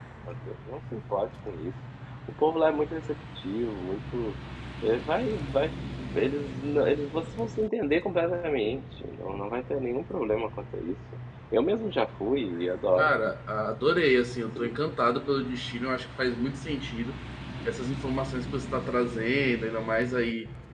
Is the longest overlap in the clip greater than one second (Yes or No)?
No